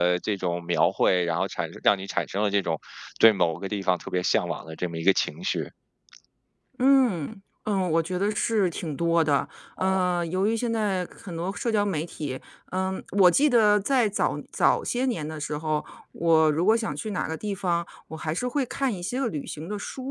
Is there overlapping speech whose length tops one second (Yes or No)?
No